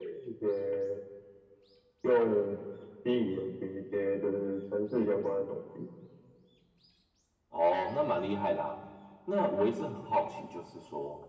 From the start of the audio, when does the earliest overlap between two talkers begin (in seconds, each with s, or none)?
none